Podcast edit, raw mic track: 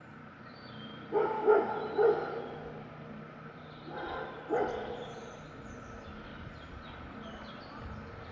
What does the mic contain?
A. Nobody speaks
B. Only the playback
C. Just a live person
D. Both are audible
A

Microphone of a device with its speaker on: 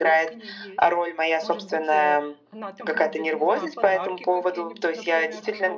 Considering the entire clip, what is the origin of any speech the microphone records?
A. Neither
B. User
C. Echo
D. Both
D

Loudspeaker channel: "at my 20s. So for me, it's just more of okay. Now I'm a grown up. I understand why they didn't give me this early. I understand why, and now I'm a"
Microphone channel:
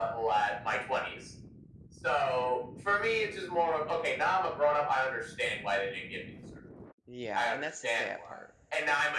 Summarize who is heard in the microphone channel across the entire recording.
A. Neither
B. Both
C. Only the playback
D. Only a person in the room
B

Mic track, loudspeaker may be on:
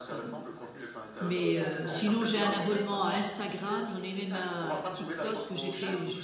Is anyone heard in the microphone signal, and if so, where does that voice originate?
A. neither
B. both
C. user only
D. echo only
B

